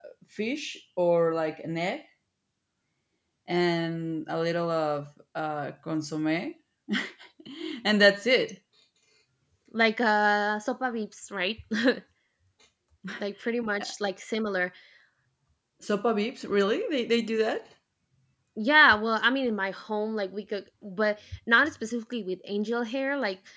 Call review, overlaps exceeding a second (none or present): none